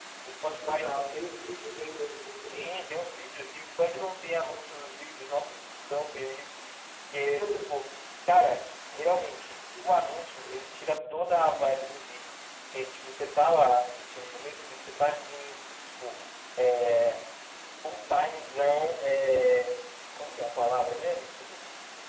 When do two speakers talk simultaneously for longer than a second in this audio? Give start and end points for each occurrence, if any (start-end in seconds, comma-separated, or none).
none